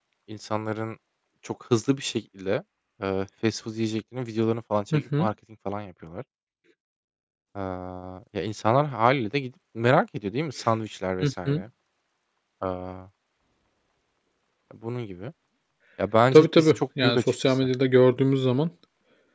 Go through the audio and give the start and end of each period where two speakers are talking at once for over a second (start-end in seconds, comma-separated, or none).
16.3-17.7